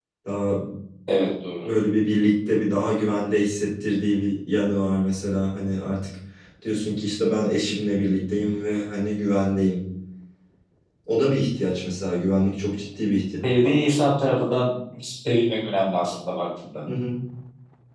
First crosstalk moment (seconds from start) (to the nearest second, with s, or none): none